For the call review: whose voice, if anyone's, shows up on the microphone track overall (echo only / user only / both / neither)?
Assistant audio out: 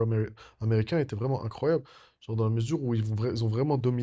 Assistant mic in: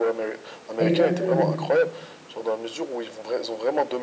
both